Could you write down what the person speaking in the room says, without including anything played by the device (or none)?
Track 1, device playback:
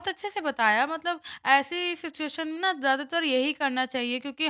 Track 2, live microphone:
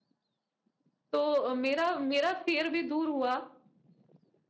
तो अ, मेरा मेरा फ़ियर भी दूर हुआ